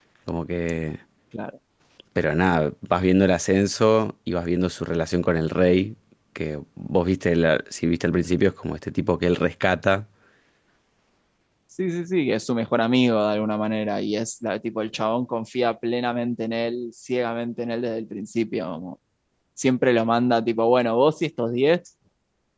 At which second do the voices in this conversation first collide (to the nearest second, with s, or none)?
none